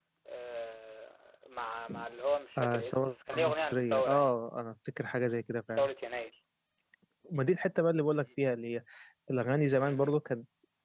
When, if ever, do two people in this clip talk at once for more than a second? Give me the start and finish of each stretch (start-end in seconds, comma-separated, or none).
2.6-4.3